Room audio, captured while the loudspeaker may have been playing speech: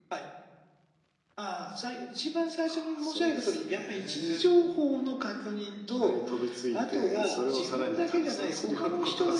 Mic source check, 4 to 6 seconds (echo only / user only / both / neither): echo only